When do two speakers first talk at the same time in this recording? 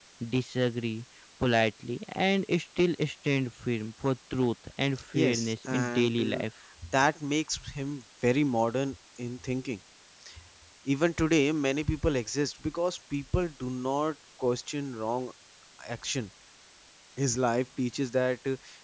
5.1 s

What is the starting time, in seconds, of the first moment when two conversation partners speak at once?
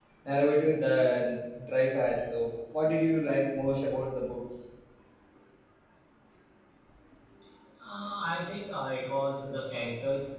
none

